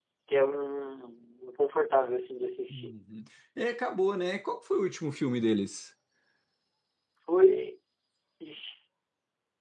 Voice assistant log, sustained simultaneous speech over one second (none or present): none